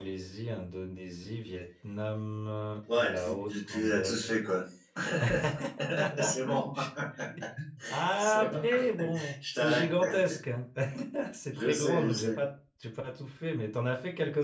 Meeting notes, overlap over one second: present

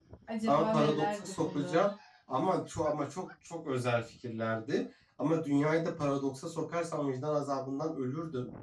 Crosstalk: present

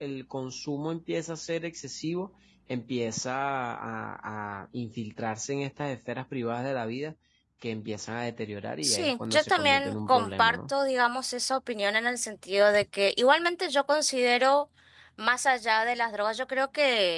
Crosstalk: present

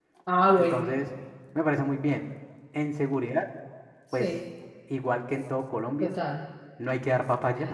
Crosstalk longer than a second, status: none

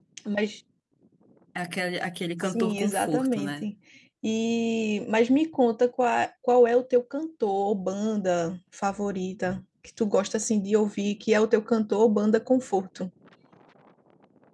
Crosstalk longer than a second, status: present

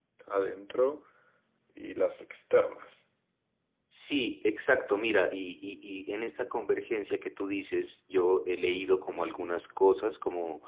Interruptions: none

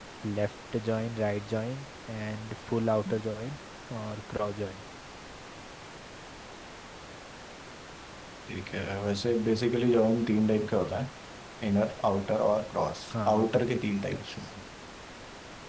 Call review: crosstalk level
present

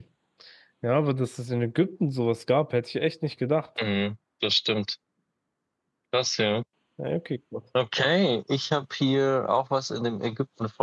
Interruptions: none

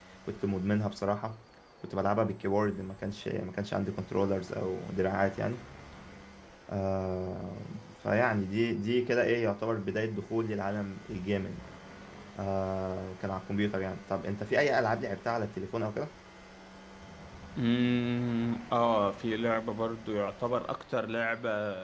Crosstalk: none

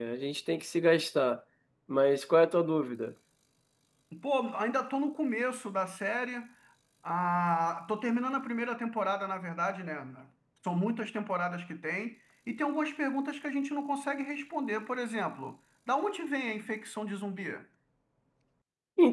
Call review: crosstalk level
none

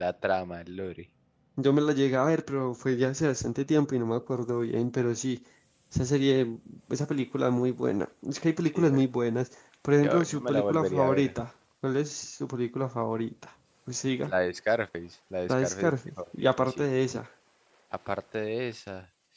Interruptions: present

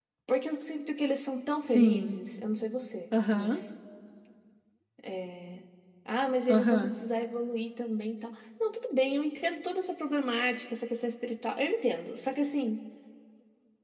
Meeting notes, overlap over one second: none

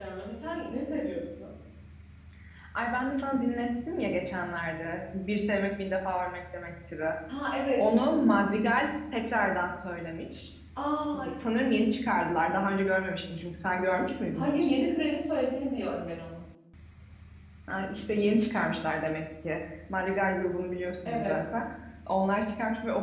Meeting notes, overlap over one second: none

